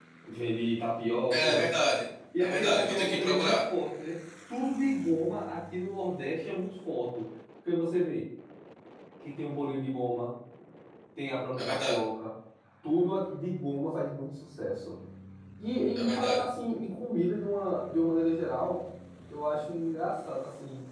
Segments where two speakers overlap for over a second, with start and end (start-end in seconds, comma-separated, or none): 2.4-3.6